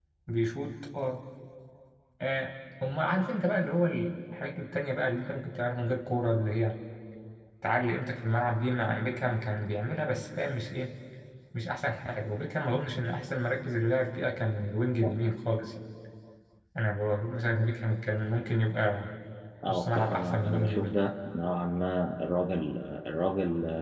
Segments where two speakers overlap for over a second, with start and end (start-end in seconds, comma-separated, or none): 19.7-20.9